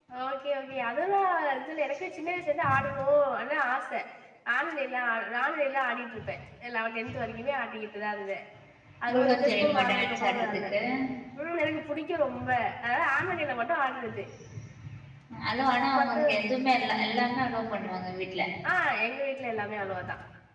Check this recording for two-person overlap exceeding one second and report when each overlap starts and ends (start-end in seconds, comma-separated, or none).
9.1-10.7